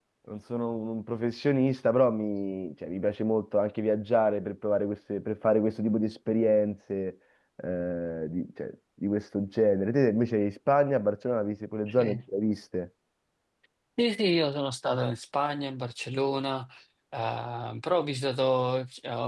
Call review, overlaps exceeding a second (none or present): none